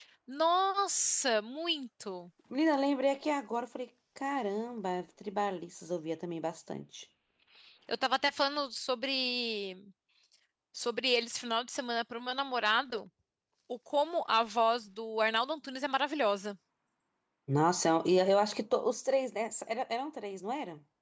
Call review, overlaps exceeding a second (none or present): none